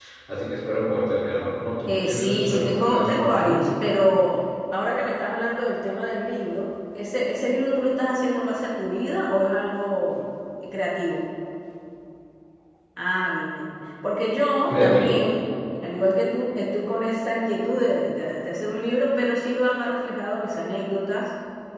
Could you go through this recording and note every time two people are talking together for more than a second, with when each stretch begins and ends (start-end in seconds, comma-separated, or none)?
1.9-3.6